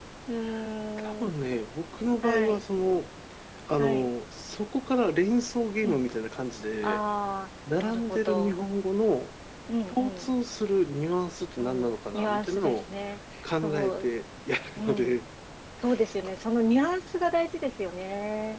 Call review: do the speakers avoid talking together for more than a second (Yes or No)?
No